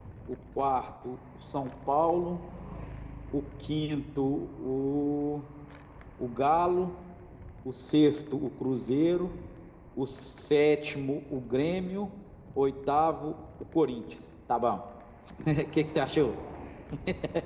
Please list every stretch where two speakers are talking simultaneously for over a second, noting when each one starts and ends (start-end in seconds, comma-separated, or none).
none